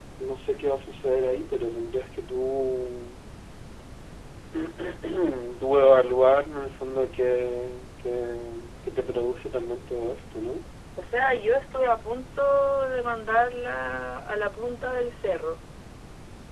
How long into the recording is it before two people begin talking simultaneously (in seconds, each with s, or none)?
none